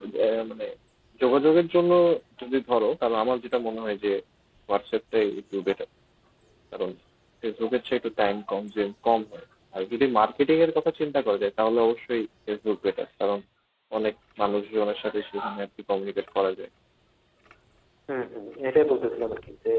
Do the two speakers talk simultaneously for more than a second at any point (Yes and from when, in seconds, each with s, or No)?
No